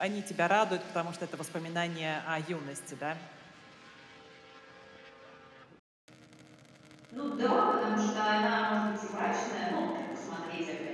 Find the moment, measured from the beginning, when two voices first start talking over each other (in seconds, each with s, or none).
none